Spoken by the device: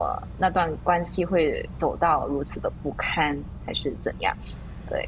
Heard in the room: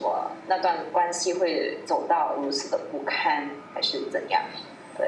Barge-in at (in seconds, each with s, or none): none